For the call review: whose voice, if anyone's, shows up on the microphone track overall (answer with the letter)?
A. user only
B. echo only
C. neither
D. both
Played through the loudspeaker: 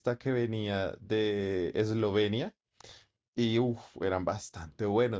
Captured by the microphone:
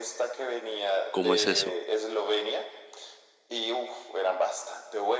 D